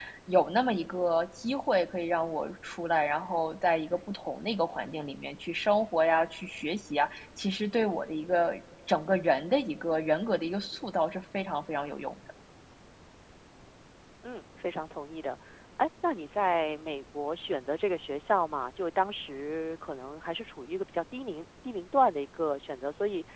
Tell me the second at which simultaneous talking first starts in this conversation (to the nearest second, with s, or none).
none